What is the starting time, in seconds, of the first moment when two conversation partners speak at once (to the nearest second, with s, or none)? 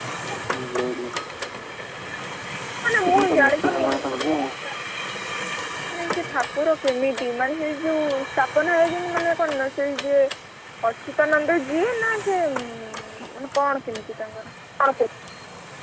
3 s